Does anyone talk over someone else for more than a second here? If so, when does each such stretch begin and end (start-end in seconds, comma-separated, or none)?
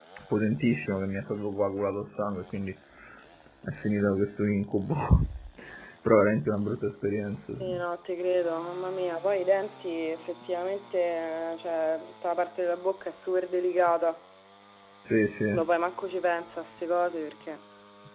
none